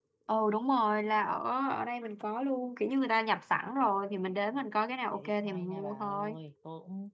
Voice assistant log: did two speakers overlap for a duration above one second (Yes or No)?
Yes